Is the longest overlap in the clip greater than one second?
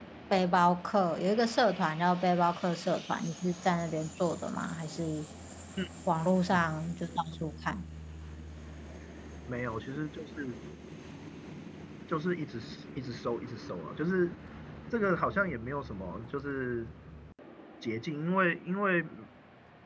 No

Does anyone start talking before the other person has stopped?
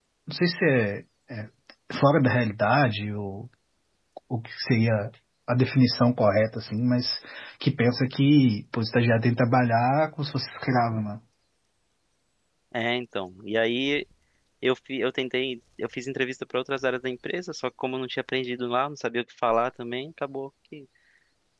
No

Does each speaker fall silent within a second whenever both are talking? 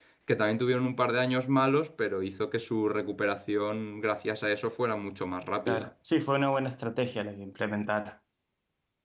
Yes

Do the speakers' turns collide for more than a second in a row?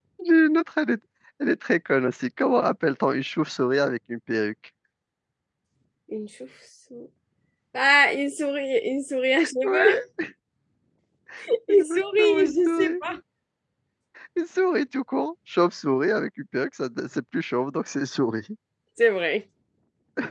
Yes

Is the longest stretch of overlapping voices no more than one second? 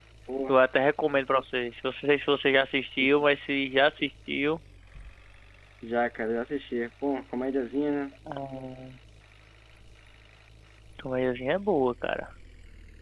Yes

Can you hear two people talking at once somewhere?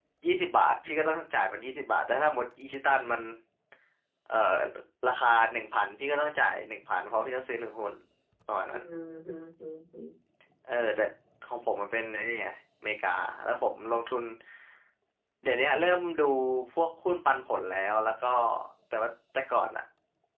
No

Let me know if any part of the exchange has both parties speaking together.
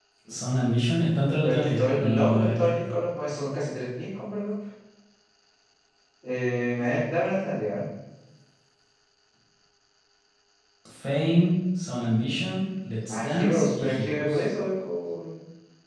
Yes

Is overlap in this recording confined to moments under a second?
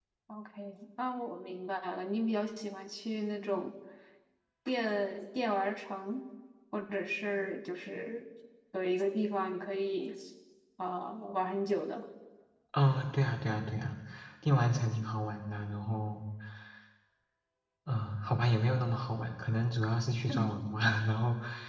Yes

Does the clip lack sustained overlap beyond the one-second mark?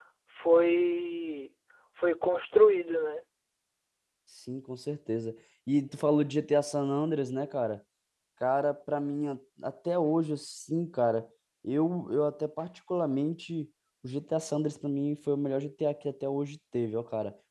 Yes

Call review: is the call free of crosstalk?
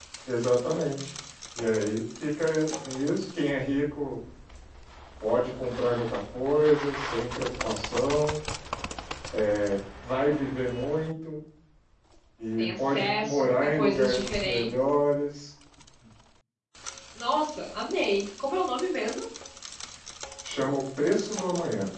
No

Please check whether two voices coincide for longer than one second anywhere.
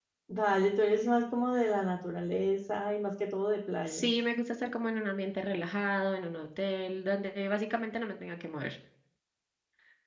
No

